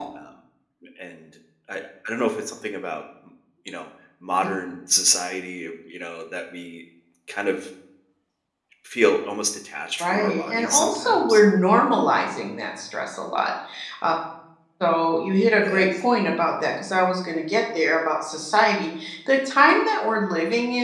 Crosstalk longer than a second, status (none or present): present